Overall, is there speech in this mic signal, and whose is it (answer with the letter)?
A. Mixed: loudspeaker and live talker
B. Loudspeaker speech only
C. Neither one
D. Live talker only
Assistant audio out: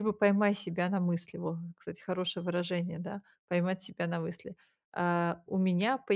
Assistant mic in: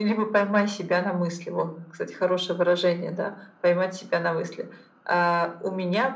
B